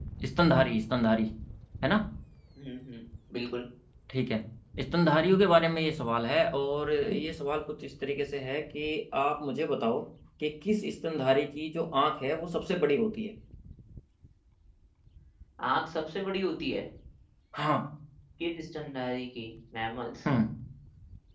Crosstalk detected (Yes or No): No